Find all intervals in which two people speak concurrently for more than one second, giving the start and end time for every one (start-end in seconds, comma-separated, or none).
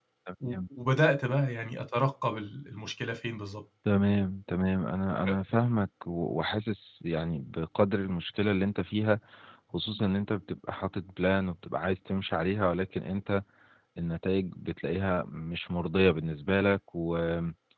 none